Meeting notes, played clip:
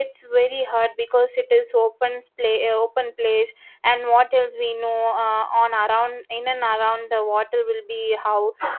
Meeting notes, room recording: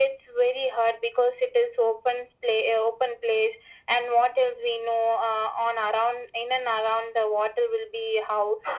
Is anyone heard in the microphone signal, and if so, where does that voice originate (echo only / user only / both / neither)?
echo only